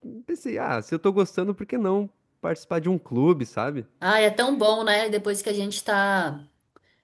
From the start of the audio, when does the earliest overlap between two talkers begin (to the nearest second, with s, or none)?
none